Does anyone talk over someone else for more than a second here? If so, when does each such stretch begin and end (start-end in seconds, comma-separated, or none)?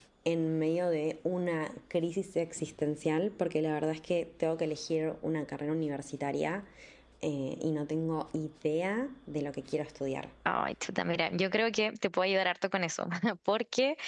none